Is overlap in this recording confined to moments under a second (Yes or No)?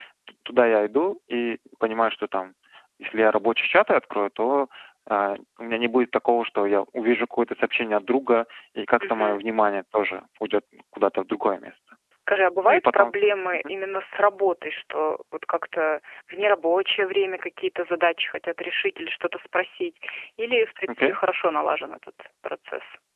Yes